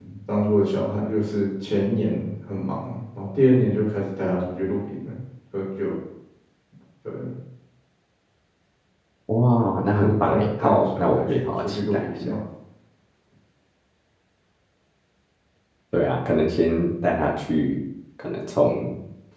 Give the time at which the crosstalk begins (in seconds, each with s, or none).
9.9 s